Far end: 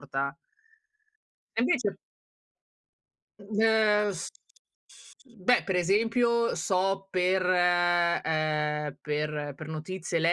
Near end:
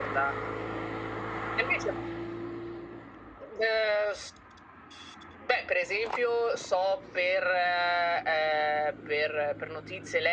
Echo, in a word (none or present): present